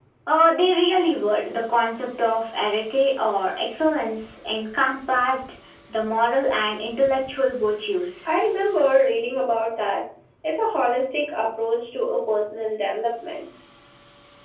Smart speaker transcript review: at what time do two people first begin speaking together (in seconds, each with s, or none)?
none